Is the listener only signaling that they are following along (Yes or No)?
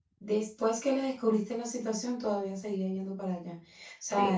Yes